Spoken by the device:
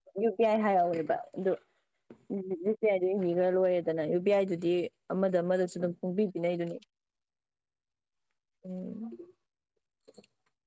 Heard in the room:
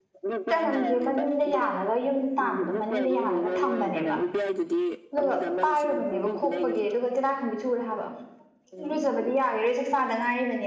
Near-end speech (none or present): present